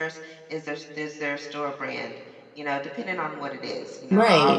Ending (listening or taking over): taking over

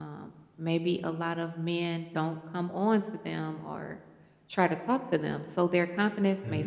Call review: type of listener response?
listening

